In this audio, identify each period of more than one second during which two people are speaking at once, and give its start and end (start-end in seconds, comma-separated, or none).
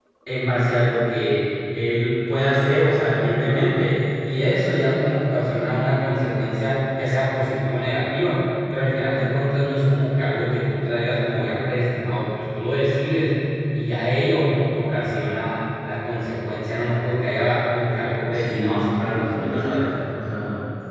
18.3-19.9